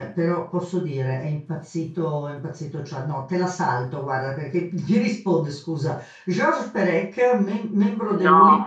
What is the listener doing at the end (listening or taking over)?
listening